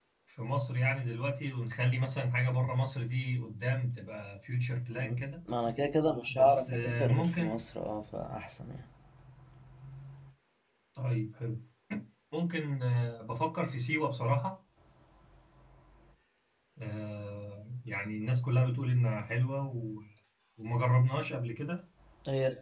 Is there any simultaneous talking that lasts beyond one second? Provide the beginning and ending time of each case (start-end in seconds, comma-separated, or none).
6.3-7.6